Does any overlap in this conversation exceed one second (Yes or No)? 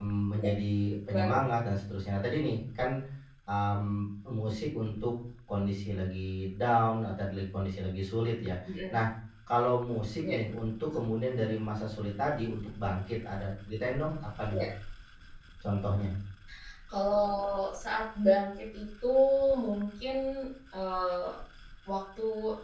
No